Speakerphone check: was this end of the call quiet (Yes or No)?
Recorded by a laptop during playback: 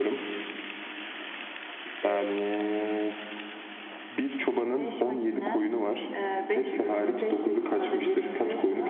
No